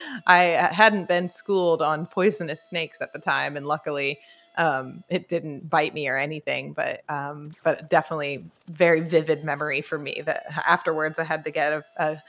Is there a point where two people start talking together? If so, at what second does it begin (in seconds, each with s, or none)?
none